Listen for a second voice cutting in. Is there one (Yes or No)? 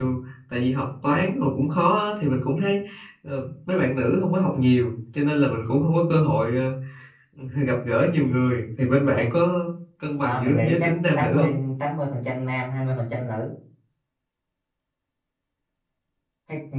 Yes